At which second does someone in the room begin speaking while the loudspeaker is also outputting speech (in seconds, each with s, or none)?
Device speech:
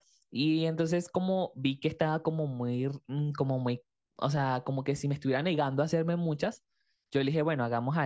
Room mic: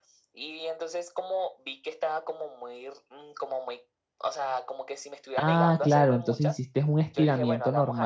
5.3 s